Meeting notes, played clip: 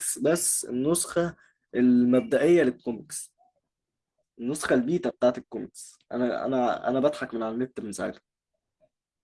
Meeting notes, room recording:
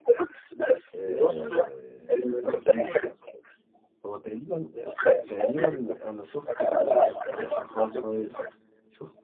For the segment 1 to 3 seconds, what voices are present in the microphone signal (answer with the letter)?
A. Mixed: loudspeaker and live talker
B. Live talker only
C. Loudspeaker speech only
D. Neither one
A